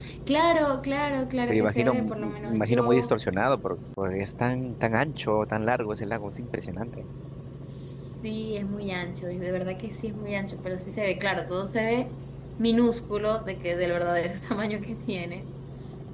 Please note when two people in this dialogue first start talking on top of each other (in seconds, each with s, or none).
1.5 s